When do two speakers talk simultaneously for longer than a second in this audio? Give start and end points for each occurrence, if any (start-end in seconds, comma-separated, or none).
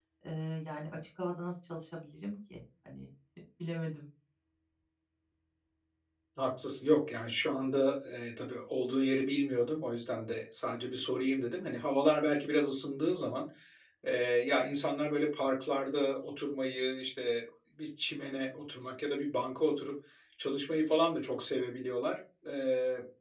none